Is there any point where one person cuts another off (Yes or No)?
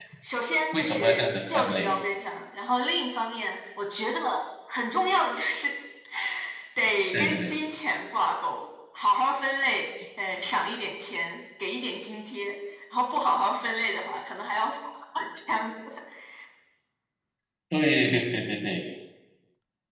Yes